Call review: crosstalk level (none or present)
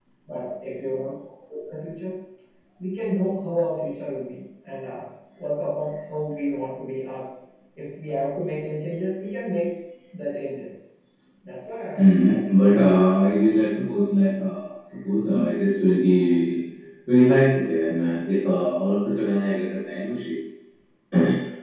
present